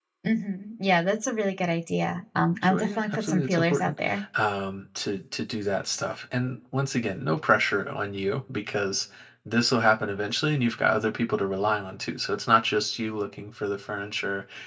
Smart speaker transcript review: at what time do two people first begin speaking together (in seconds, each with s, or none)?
2.6 s